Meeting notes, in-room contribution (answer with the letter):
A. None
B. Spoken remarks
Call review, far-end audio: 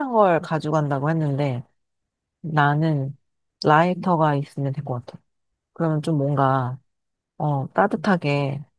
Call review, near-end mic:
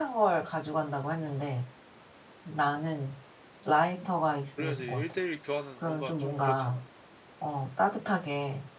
B